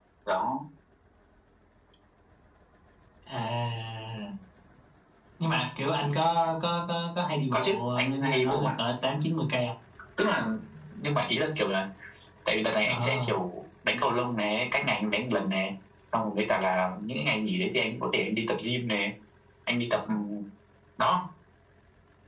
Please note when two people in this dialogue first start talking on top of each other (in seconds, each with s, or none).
7.5 s